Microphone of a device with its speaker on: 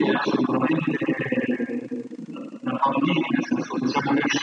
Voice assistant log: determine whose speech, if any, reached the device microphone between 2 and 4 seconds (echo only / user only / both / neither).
echo only